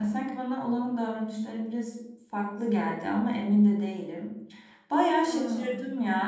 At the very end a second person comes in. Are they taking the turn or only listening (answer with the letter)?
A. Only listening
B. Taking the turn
A